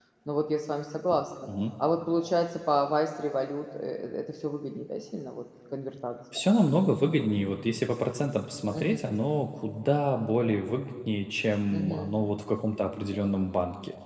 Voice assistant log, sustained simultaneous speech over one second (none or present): none